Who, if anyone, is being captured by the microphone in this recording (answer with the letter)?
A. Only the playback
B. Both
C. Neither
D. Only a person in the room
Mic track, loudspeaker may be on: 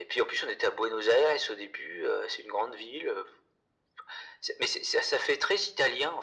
A